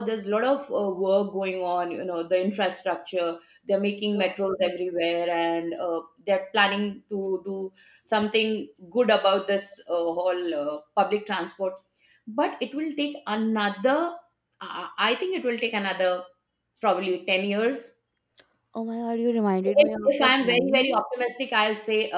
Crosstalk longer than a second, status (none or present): present